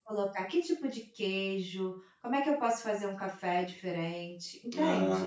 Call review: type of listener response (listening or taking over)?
listening